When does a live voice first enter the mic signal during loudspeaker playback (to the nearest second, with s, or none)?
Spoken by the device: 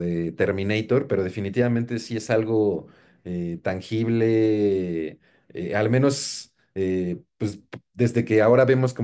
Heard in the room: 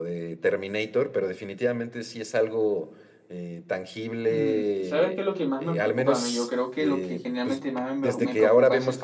4 s